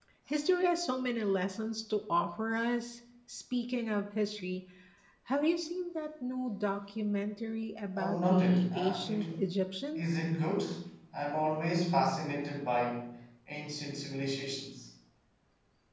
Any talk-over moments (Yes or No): Yes